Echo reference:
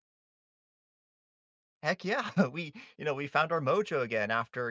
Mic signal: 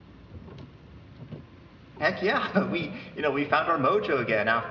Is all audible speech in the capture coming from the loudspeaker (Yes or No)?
Yes